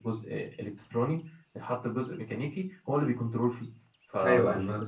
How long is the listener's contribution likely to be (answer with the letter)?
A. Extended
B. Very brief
A